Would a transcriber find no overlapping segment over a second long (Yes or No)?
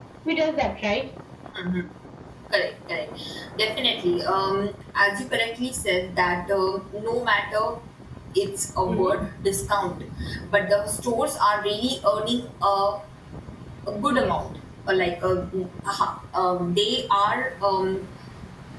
Yes